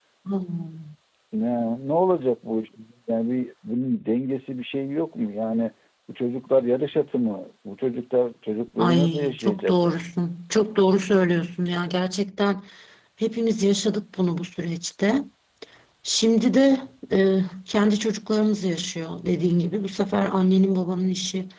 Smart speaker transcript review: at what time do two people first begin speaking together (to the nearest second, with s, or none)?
9 s